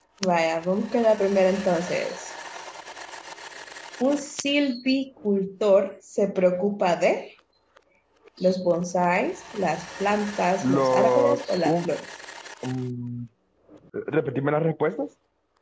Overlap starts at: 10.6 s

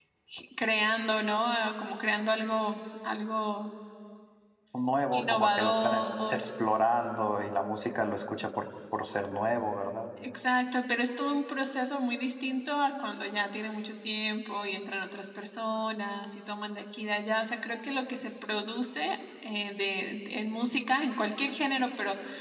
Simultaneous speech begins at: 5.1 s

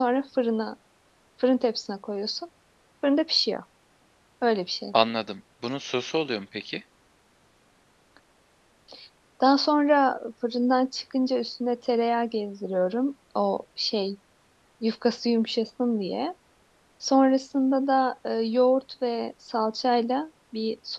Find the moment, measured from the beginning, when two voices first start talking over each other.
none

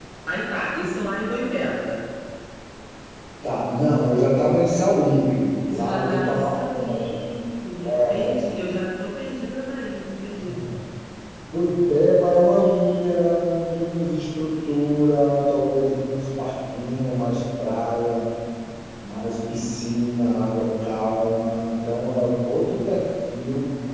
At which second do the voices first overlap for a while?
5.7 s

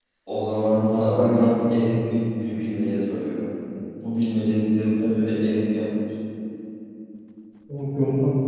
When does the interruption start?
0.8 s

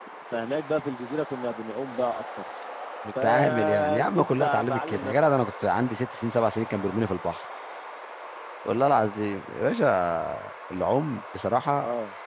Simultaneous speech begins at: 3.2 s

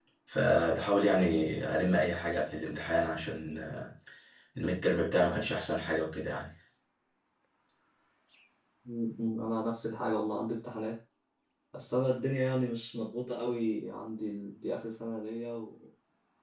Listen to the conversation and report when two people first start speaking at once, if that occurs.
none

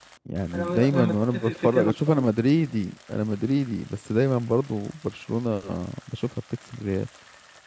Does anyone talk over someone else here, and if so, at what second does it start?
0.5 s

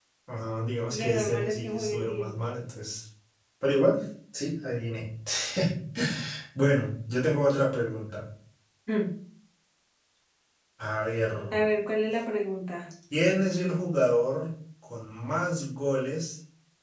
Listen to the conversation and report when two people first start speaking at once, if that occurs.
0.9 s

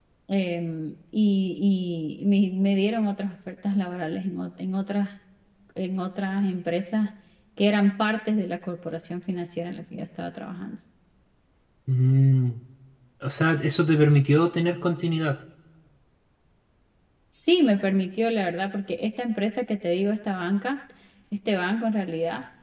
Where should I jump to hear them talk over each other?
none

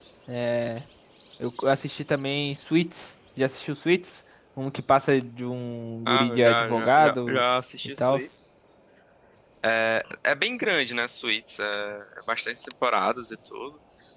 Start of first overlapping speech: 6.1 s

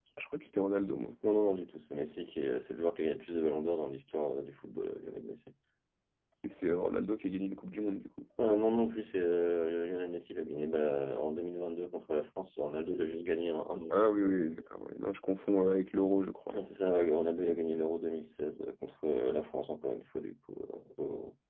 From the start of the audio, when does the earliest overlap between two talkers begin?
none

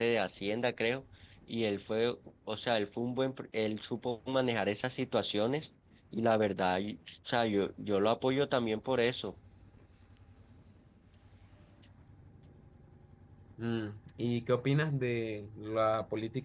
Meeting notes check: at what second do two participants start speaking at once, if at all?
none

